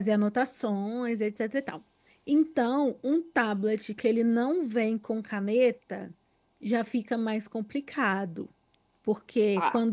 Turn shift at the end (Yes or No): No